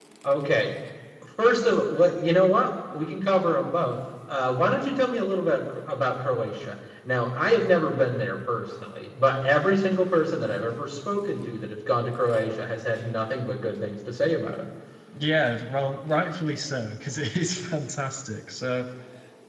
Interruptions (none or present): none